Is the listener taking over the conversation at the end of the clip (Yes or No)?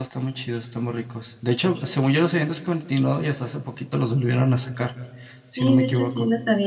Yes